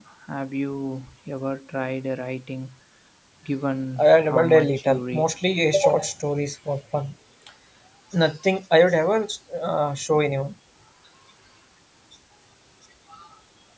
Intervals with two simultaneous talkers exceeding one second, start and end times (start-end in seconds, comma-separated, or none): 4.0-5.3